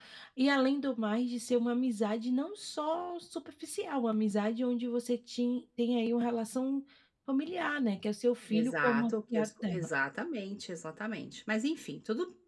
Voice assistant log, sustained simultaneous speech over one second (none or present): present